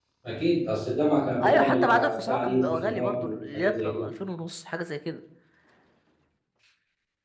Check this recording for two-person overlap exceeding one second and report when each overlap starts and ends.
1.4-4.1

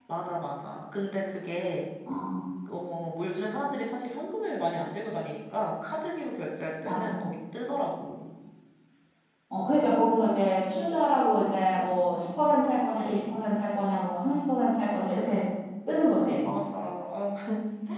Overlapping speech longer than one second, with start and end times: none

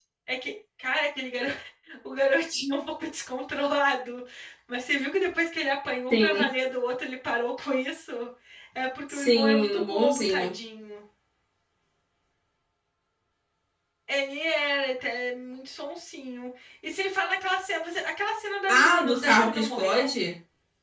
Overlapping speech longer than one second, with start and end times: 9.1-10.5, 18.7-20.1

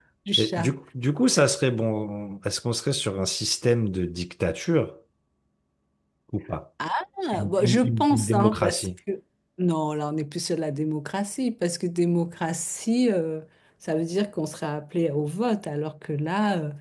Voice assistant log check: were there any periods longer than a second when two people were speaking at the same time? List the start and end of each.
7.5-8.9

